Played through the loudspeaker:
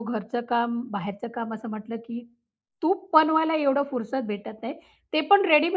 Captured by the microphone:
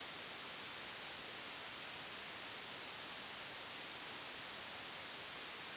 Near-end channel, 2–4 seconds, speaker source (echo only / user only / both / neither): neither